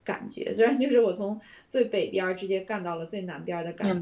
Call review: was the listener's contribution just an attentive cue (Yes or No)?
No